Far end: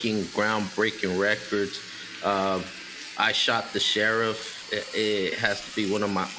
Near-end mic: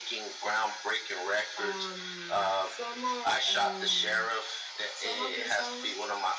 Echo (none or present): present